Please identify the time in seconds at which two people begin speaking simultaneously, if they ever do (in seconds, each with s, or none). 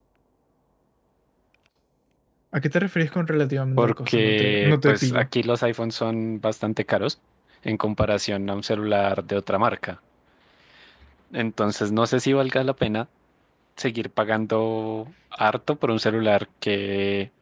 3.8 s